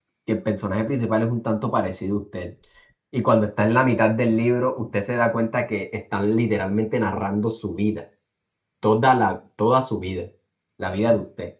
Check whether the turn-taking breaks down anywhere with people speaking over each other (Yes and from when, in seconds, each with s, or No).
No